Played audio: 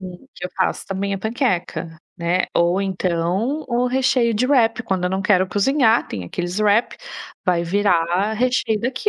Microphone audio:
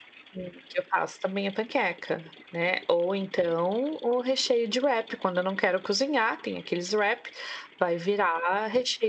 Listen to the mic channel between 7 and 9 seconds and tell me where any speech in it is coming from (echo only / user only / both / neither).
echo only